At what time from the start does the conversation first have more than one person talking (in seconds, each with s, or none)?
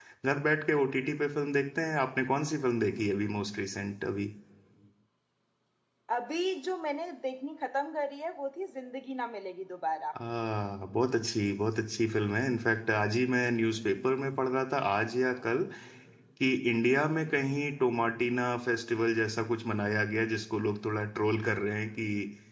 none